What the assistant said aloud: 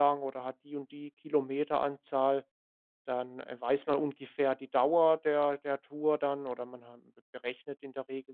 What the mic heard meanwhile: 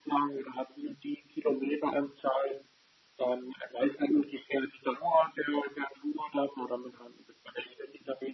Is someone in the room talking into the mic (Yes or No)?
No